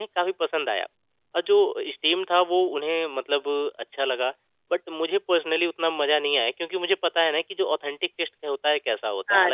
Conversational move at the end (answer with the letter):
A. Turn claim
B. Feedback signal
A